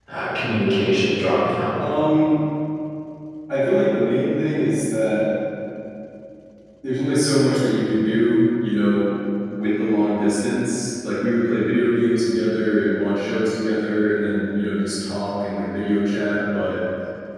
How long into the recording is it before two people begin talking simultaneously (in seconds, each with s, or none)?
none